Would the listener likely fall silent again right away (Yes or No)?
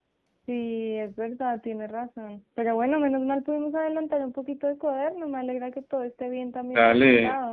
No